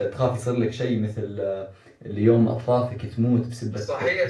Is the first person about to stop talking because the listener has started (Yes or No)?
Yes